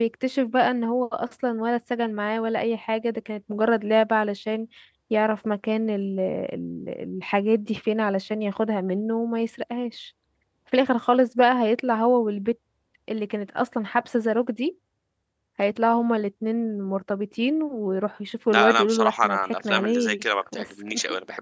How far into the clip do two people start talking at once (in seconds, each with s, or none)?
18.5 s